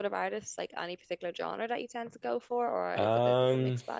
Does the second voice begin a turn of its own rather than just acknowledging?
Yes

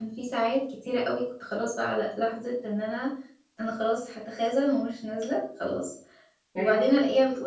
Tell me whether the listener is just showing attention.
Yes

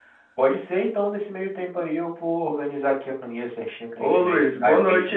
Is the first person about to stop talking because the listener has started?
Yes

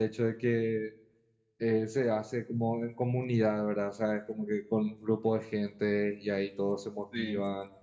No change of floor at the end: Yes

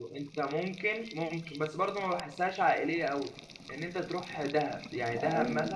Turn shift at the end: No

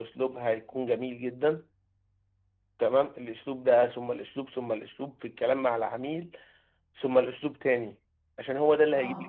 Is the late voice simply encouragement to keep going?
Yes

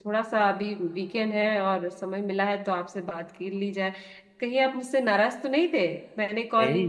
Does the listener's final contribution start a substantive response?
Yes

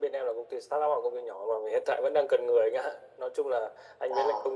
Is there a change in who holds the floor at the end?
No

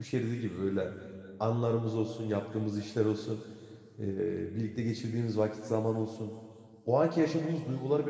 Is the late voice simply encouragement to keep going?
Yes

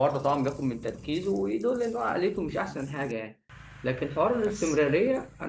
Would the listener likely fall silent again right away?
Yes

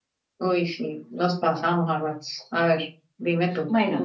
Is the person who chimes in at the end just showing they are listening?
No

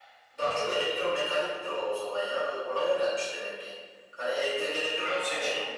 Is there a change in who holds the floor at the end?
Yes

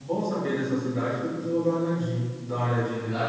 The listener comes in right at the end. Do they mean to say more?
No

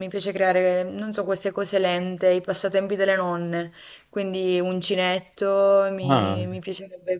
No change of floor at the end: Yes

